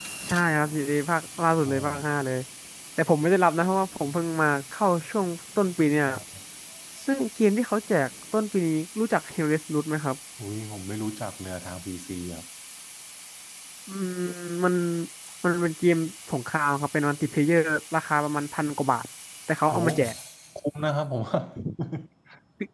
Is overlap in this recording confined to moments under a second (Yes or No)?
Yes